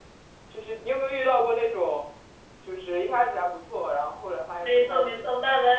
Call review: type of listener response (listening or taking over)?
taking over